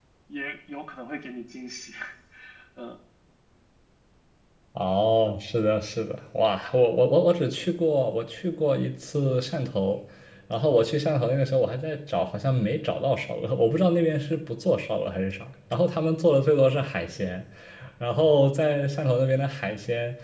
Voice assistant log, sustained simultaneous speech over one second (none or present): none